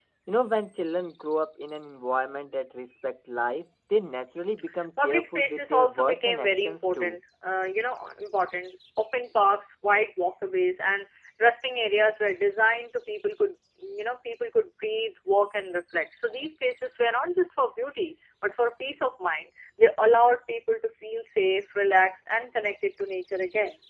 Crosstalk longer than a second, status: present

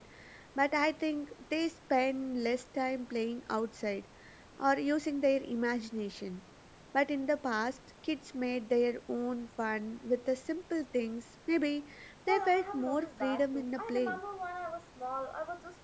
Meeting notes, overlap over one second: present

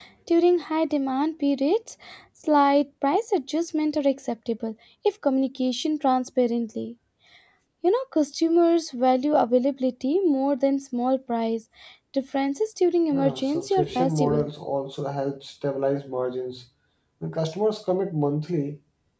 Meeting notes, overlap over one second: present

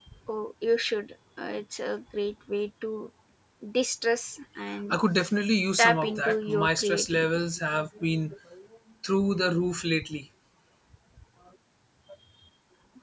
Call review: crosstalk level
present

